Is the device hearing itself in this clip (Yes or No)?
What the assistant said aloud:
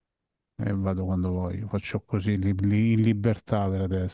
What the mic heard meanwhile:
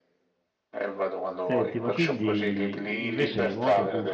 Yes